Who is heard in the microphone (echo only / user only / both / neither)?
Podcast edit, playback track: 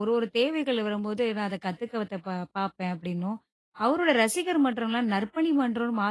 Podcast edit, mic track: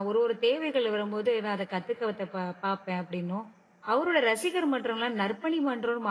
echo only